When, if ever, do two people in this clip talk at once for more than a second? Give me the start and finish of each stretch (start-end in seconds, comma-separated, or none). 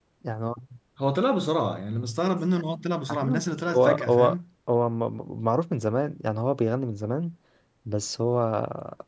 3.1-4.4